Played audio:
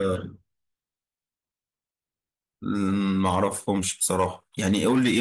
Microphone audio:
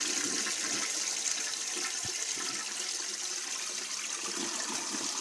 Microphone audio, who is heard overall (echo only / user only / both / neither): neither